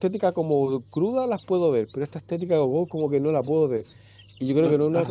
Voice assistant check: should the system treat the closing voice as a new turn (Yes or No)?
No